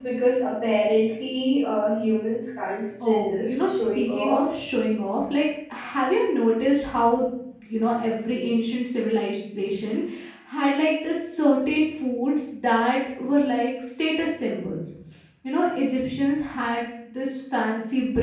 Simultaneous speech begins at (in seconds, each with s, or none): 3.0 s